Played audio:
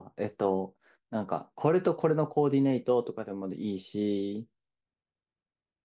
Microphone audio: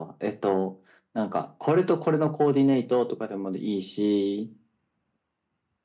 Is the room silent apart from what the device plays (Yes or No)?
Yes